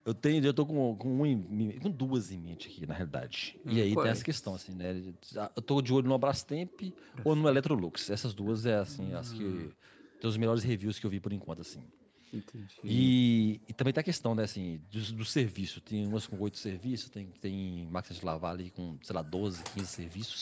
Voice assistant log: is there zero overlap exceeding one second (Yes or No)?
No